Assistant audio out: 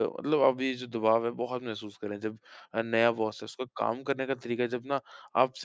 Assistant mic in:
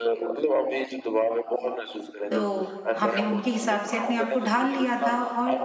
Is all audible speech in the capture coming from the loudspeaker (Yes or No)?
No